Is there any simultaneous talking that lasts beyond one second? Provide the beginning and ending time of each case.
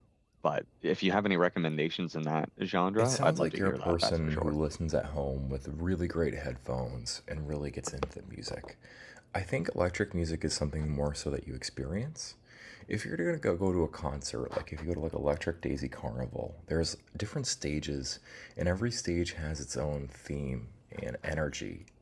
3.0-4.5

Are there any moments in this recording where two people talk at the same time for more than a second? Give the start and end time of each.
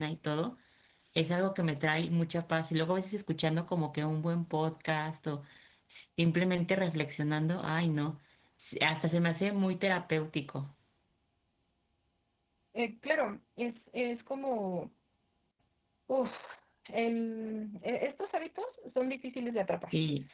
none

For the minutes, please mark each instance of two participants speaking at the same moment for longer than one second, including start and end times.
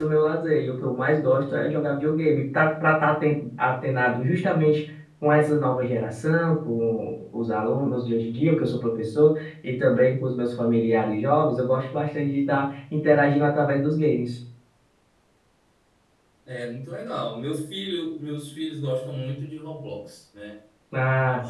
none

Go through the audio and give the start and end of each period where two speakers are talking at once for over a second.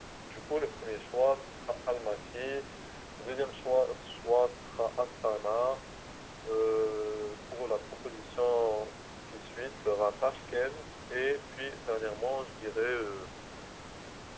none

